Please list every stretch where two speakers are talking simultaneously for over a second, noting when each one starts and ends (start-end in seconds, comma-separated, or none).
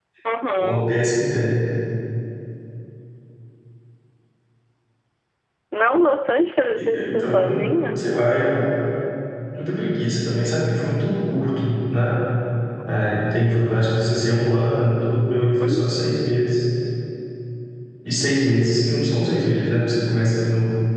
6.8-8.1